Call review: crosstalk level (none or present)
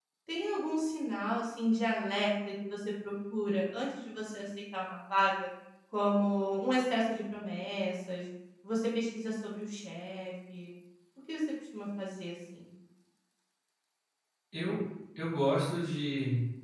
none